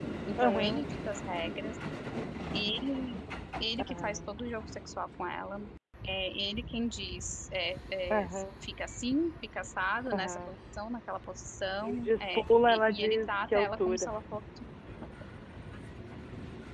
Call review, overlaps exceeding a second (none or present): present